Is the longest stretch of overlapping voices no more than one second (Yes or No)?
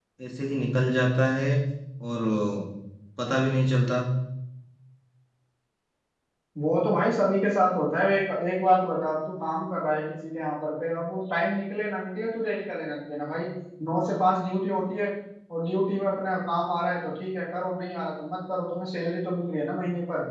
Yes